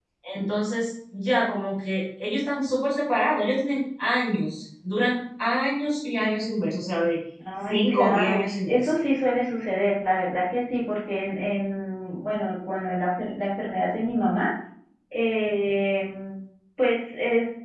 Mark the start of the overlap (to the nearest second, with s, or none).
8 s